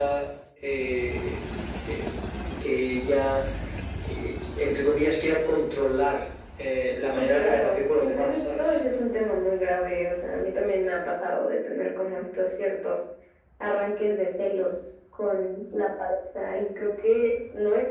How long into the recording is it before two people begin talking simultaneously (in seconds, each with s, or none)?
7.2 s